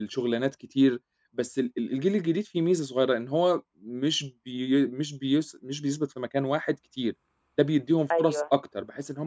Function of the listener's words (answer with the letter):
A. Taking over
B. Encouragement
B